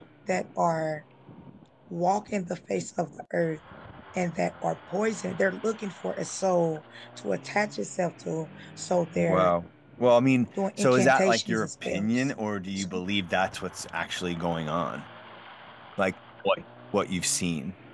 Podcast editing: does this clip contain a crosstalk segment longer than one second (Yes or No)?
Yes